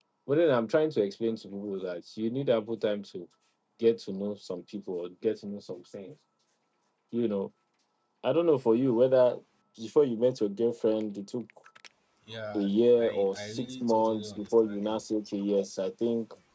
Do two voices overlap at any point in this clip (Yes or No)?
Yes